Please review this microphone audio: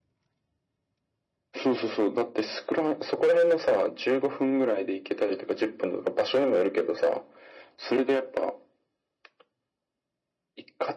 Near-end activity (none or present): none